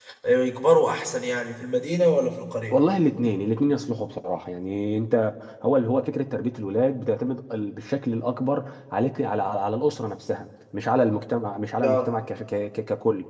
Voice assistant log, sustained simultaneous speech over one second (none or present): none